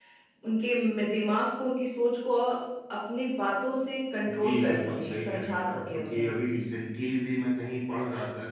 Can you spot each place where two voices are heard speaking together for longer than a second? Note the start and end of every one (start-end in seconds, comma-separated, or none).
4.3-6.3